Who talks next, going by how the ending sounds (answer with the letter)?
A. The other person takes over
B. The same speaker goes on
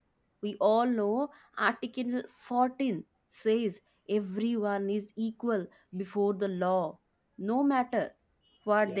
B